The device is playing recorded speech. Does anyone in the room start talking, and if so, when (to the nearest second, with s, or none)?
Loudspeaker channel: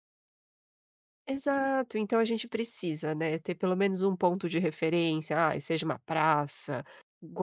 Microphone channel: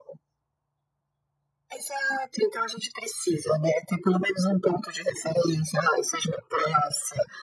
none